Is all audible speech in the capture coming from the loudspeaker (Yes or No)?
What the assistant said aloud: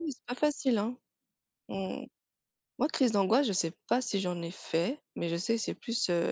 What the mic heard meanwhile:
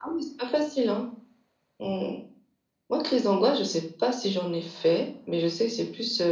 Yes